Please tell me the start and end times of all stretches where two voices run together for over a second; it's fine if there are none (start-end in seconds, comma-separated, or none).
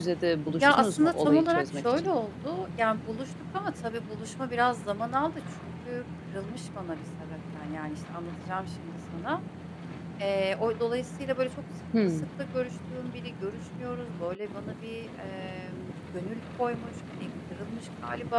0.6-2.1